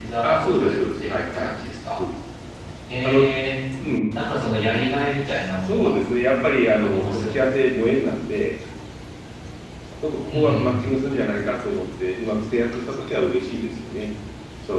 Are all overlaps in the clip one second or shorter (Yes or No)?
No